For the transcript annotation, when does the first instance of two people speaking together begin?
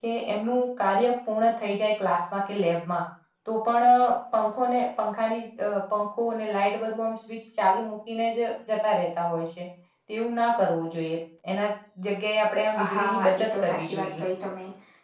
12.7 s

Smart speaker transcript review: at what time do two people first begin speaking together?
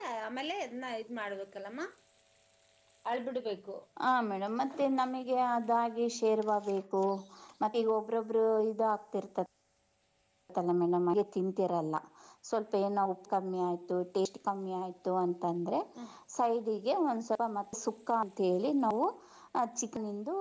none

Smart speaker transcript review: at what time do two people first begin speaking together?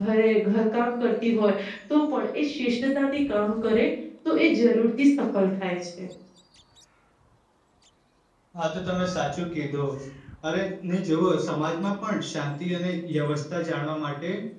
none

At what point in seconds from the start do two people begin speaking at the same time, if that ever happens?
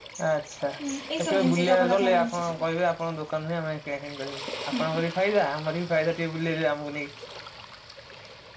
1.2 s

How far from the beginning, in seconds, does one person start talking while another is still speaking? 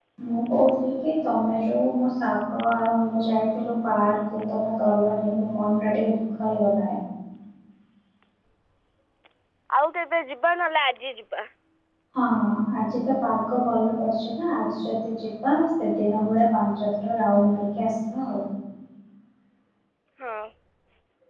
none

